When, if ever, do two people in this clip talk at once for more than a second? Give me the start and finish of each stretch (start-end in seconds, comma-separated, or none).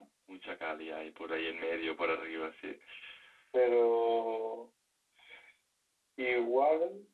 none